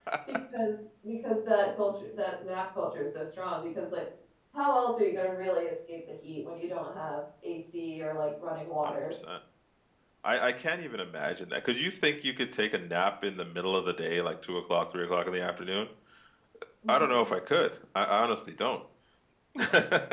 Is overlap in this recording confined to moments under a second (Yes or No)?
Yes